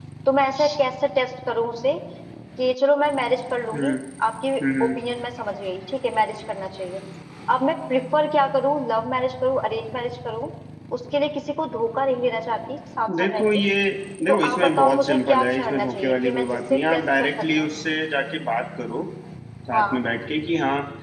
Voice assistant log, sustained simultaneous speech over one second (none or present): present